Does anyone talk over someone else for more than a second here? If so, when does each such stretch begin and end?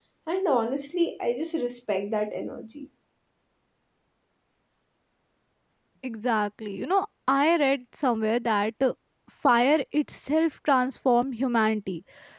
none

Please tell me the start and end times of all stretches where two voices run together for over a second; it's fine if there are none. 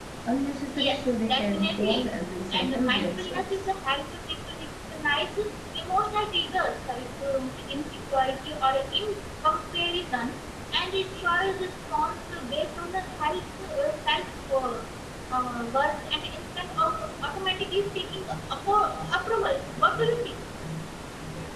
0.8-2.0, 2.6-3.8

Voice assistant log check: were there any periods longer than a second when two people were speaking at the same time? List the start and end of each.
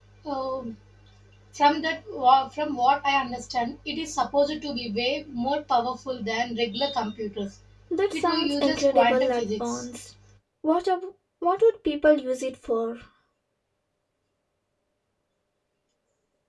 8.1-9.8

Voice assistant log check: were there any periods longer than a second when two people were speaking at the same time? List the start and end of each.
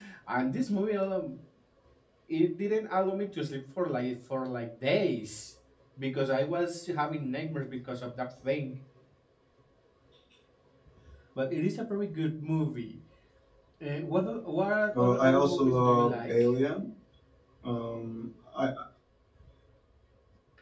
14.9-16.3

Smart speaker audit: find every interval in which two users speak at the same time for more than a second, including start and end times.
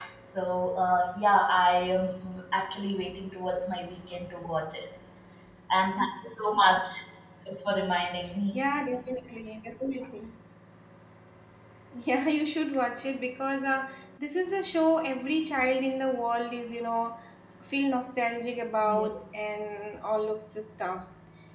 none

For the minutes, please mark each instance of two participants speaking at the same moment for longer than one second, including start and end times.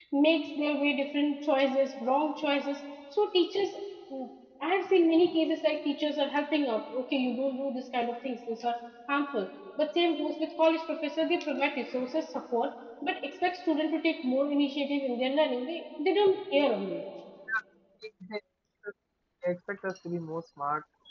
none

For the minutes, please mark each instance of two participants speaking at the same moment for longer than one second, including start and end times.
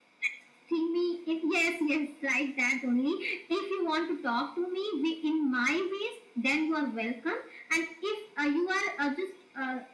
none

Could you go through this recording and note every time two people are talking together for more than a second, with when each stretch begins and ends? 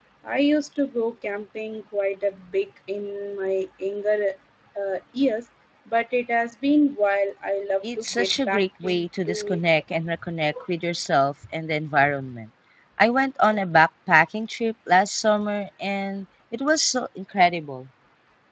8.0-9.6

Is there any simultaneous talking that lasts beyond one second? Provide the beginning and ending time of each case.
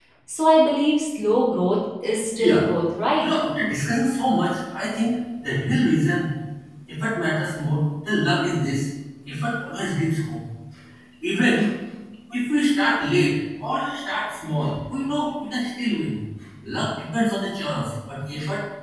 none

